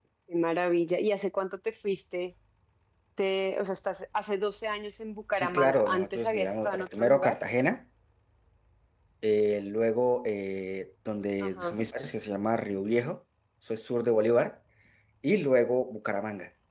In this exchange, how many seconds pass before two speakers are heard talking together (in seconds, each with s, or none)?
5.4 s